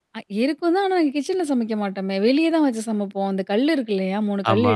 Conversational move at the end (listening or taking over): listening